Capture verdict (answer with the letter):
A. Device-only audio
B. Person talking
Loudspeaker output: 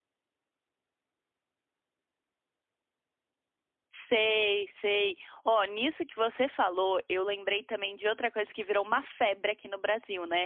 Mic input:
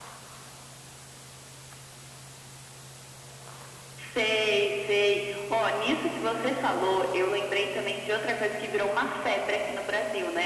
A